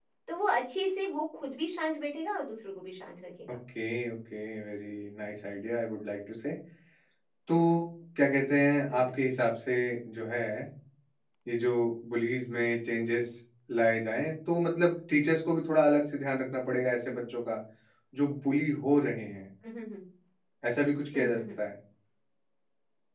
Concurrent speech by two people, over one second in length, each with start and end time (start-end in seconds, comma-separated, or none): none